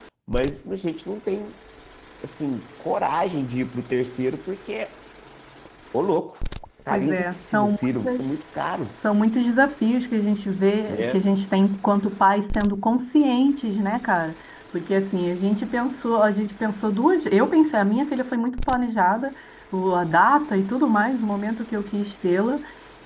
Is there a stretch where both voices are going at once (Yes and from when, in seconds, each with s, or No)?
Yes, from 6.9 s